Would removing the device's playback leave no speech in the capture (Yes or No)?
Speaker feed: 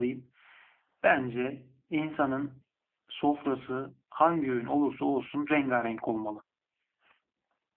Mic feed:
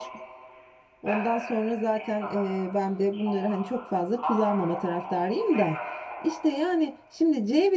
No